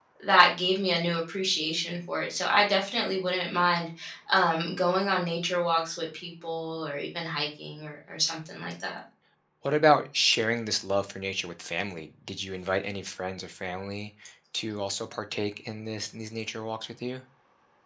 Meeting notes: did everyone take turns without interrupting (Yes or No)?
Yes